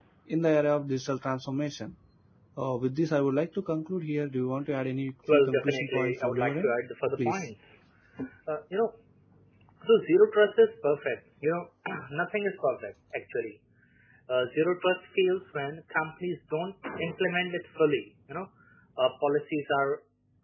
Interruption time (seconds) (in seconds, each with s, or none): 5.3 s